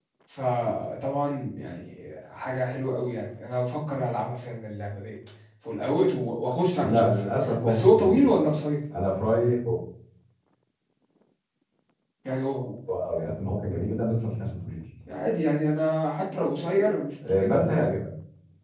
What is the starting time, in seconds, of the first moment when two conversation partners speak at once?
6.8 s

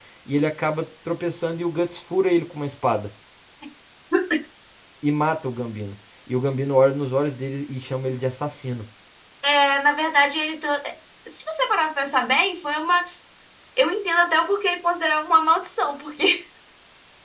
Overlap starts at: none

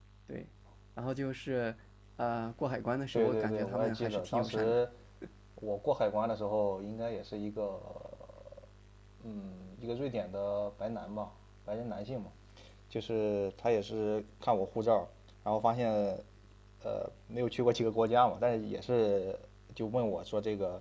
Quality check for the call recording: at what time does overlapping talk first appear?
3.1 s

